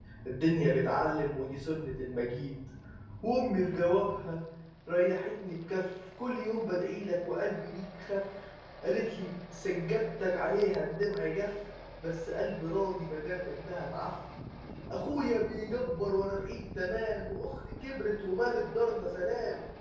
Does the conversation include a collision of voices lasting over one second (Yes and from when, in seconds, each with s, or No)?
No